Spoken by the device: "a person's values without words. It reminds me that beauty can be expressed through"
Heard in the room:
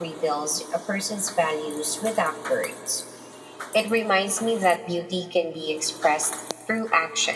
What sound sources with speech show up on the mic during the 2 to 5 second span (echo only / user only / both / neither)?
echo only